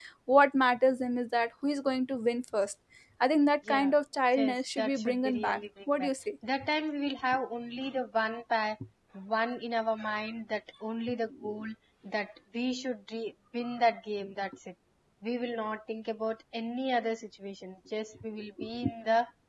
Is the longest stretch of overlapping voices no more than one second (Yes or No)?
No